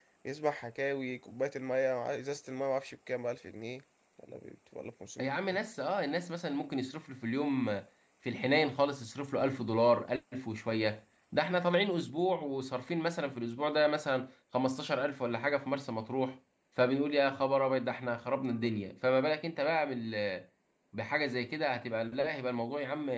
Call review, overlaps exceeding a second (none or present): none